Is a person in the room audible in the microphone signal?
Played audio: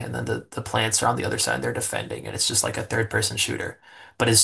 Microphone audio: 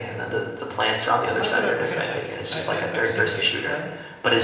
Yes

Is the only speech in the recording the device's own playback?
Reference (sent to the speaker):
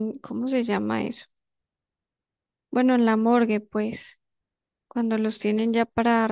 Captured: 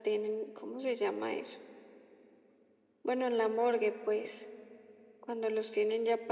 Yes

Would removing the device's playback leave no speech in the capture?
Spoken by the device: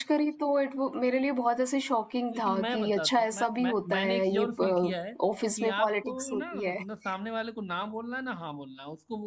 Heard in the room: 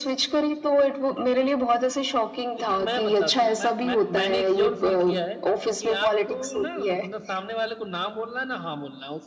Yes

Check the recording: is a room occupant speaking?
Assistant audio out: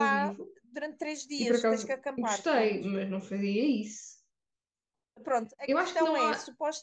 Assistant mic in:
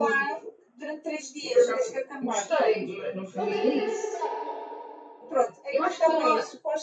Yes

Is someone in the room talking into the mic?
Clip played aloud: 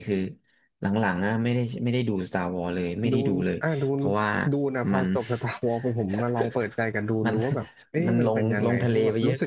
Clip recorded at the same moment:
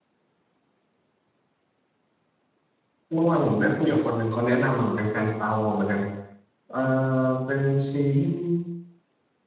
Yes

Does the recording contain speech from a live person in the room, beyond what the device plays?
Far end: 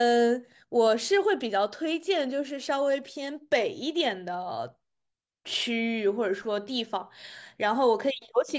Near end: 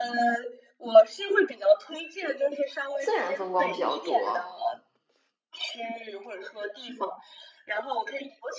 Yes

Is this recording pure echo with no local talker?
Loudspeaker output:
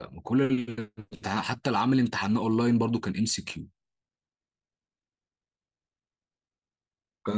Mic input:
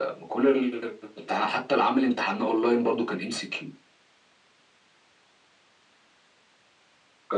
Yes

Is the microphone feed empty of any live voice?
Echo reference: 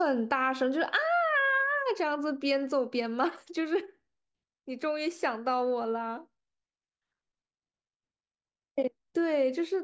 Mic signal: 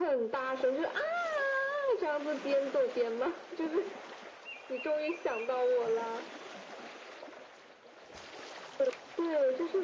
Yes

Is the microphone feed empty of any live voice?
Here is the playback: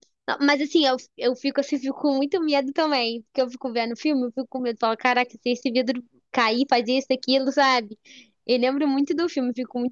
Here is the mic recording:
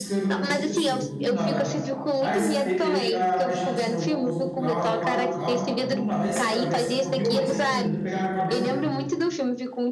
No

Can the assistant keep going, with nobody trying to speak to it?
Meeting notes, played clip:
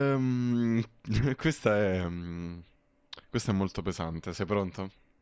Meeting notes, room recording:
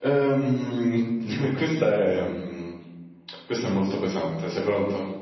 Yes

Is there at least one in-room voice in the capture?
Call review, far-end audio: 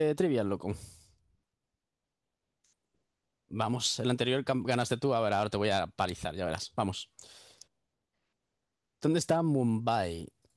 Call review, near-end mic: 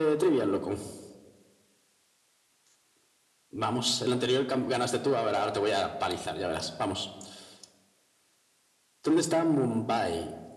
No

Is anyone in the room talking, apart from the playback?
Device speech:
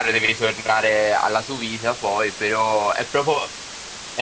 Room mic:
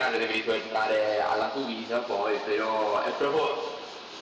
No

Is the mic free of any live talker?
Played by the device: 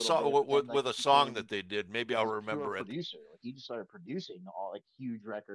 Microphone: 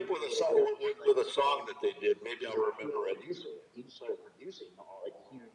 Yes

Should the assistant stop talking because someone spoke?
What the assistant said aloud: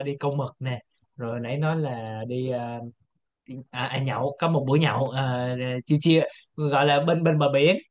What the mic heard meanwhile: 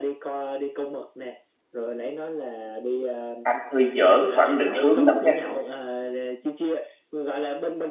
Yes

